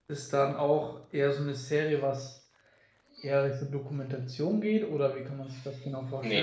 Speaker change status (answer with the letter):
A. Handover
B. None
A